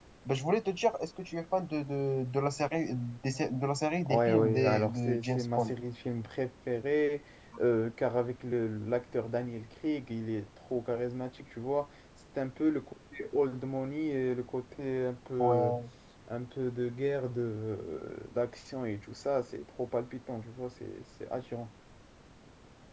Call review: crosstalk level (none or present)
present